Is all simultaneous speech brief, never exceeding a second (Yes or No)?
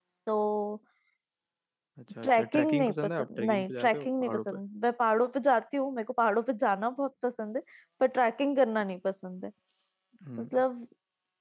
No